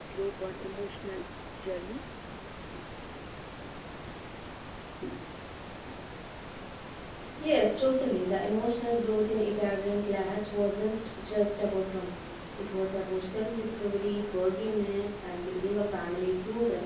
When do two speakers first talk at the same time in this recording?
none

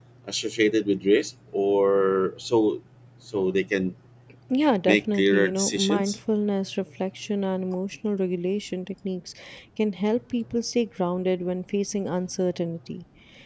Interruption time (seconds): 5 s

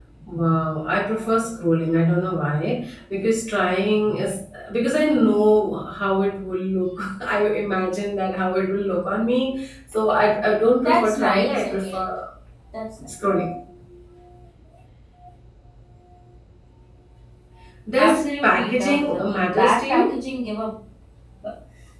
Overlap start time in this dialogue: 11 s

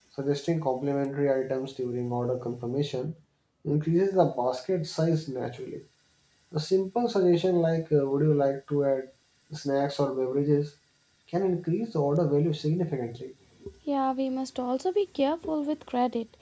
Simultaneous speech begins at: none

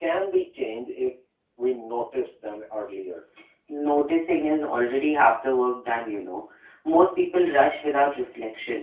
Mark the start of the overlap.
none

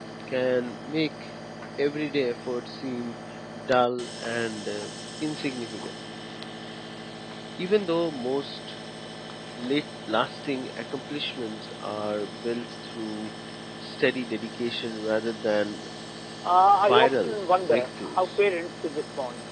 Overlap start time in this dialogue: 17 s

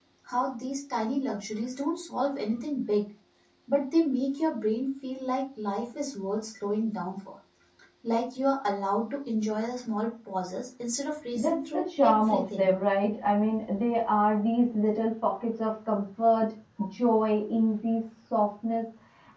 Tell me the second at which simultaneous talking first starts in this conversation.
11 s

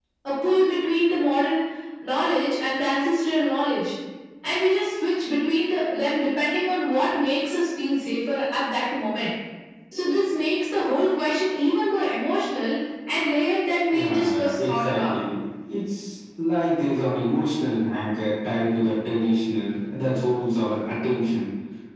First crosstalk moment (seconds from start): 14 s

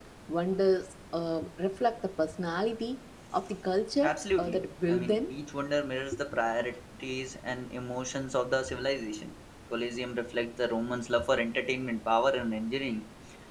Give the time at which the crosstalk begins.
4 s

